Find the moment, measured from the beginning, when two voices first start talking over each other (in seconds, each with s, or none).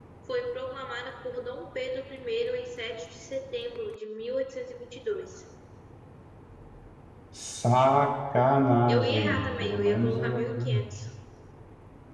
8.8 s